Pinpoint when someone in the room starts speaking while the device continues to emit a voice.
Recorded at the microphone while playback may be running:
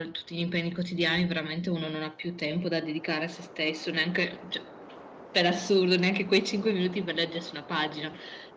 none

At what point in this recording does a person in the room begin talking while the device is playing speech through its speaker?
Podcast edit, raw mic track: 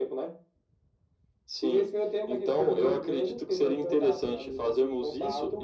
none

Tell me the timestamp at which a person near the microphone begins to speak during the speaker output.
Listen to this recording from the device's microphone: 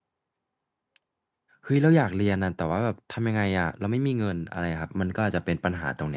1.6 s

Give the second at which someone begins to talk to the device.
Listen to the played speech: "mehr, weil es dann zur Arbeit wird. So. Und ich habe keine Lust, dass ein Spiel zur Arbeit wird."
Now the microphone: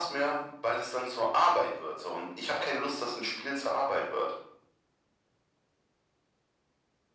none

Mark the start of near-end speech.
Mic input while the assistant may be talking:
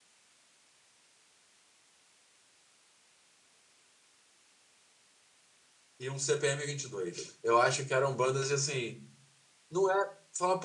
6.0 s

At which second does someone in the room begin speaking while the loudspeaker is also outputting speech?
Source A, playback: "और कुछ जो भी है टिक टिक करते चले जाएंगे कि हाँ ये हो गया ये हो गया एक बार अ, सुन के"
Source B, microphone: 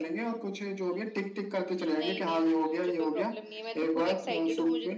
1.9 s

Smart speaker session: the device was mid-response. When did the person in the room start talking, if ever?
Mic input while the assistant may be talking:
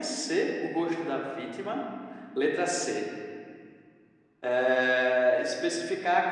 none

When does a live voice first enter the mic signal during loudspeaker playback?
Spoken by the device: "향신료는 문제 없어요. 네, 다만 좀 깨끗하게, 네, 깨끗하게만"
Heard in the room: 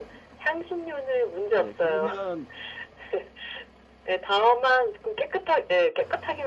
1.5 s

